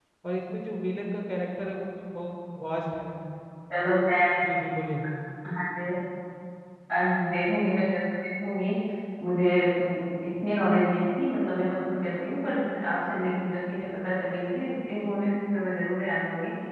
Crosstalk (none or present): none